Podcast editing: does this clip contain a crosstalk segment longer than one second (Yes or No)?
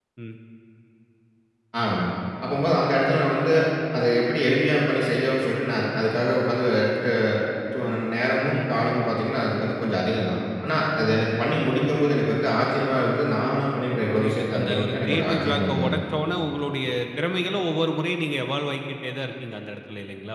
Yes